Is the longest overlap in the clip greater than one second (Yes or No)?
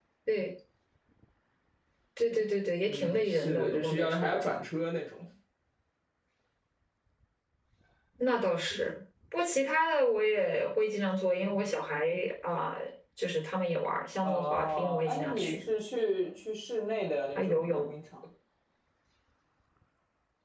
Yes